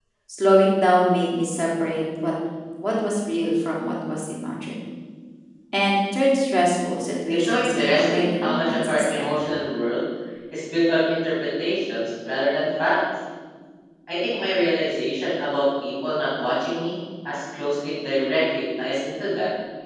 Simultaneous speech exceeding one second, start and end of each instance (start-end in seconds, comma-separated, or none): 7.3-9.3